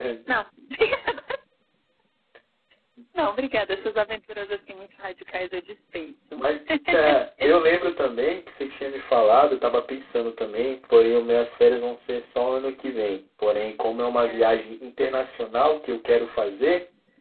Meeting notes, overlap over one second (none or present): none